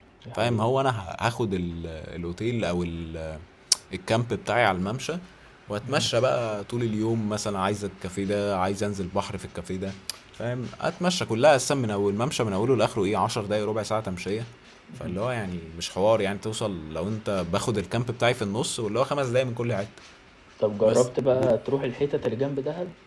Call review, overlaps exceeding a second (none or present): none